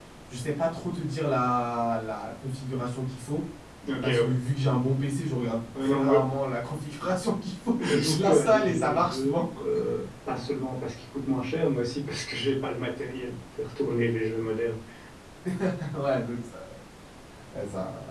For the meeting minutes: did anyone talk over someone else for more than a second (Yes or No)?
Yes